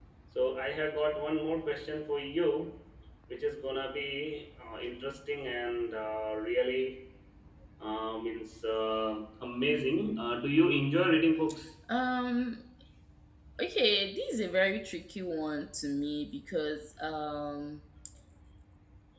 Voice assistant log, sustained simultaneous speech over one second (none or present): none